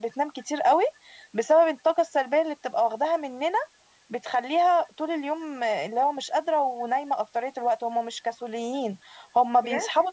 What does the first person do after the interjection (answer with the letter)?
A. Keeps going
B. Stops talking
A